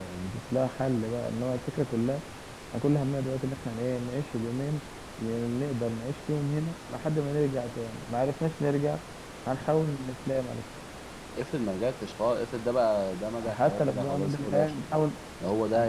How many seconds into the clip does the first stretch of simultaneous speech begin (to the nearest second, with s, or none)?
13 s